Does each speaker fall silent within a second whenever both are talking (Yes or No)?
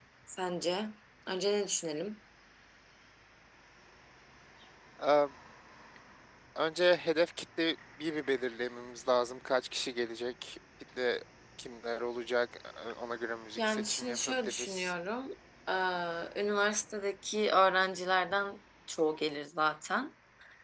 No